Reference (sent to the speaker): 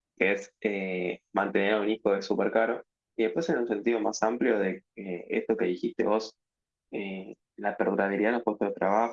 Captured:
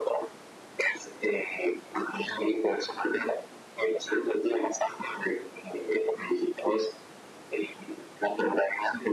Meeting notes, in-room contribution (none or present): none